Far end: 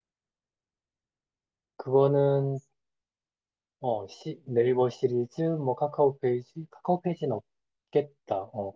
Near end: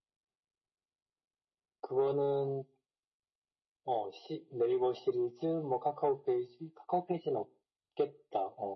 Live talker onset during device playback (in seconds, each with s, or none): none